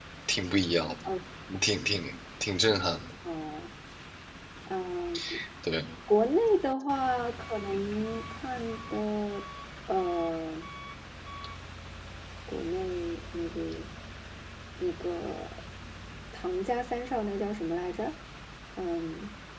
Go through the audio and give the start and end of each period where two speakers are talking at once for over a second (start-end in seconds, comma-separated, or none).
none